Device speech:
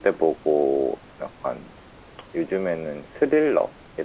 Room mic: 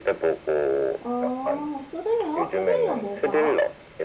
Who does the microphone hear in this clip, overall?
both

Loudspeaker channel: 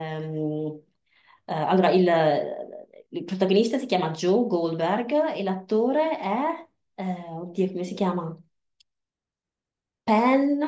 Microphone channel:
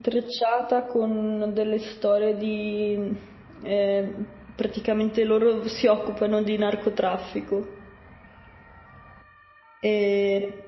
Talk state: user only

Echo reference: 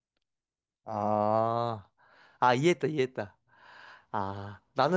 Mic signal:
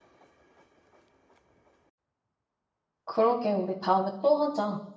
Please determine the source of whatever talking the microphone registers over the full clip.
user only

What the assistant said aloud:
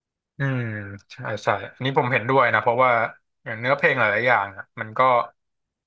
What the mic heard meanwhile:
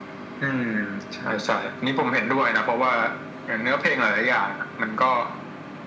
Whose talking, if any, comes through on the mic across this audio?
echo only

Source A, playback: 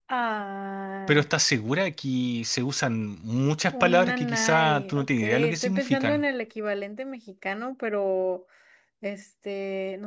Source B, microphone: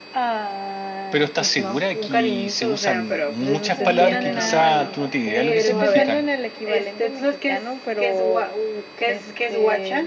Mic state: both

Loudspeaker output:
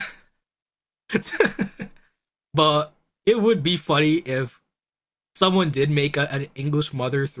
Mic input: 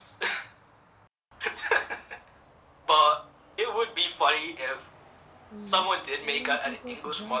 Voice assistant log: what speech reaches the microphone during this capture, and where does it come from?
both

